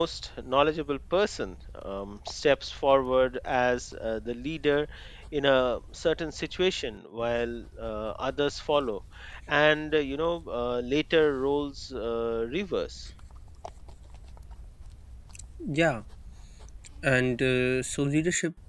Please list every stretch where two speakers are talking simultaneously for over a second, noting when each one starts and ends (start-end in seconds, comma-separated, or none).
none